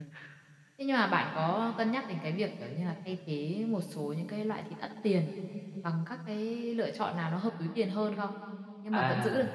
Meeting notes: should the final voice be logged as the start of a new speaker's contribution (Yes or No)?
No